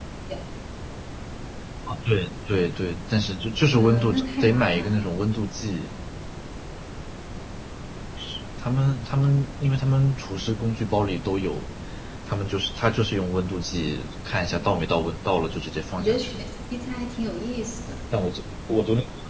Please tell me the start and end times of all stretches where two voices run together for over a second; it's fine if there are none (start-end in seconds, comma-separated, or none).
3.8-5.1